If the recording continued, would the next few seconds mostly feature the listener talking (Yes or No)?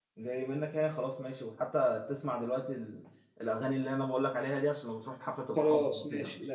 Yes